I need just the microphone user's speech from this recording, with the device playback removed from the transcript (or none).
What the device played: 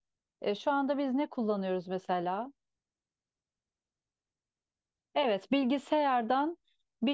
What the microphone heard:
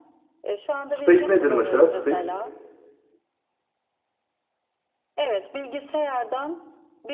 Space nedir mesela? Space.